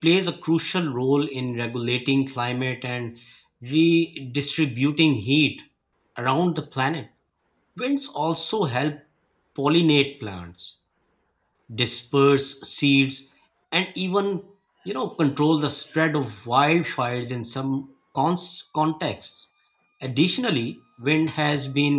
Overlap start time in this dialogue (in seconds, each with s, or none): none